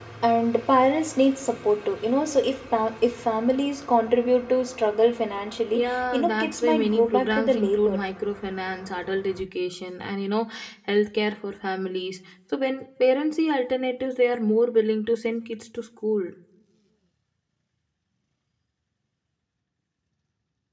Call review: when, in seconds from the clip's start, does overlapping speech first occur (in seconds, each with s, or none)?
5.7 s